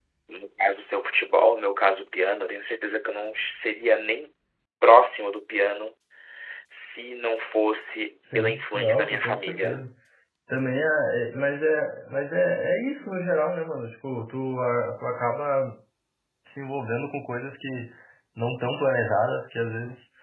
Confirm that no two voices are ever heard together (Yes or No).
No